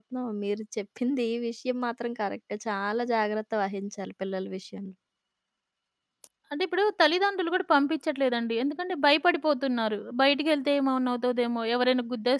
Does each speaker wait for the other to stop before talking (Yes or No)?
Yes